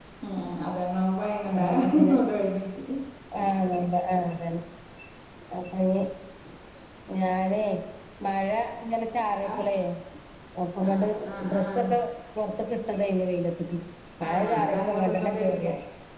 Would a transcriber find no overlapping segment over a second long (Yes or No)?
No